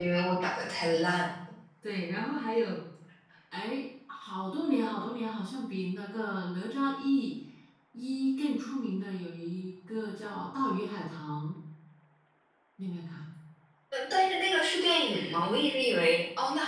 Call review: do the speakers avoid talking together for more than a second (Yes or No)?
Yes